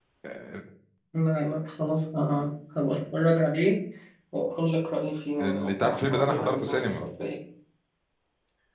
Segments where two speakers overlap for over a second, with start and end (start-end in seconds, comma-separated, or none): 5.4-7.0